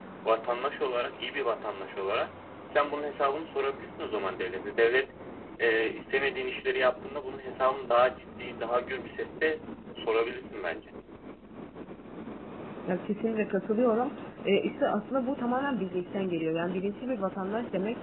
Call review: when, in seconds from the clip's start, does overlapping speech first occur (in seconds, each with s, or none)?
none